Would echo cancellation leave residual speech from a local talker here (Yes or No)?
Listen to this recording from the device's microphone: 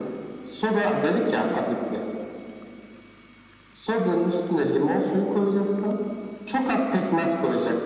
No